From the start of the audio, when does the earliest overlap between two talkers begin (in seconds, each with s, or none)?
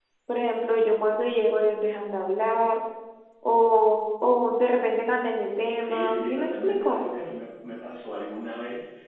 5.8 s